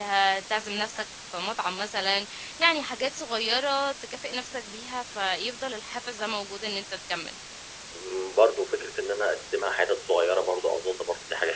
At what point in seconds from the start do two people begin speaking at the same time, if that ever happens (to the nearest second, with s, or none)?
none